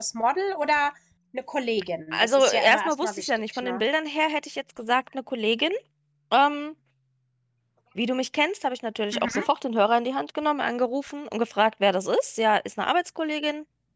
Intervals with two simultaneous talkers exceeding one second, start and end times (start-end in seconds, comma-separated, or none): 2.1-3.8